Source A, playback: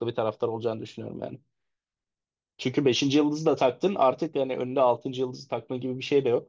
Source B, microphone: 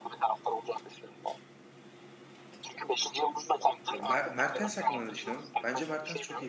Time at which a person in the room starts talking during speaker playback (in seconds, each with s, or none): 3.9 s